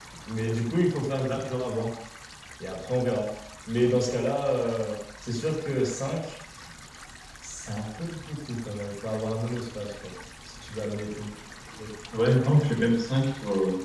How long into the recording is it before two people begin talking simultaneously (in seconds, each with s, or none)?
none